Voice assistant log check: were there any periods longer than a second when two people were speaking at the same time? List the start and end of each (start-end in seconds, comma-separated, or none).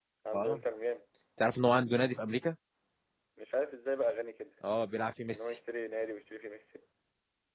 none